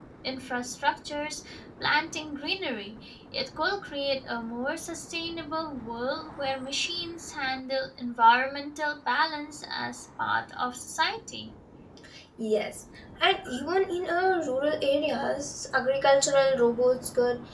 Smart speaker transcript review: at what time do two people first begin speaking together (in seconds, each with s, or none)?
none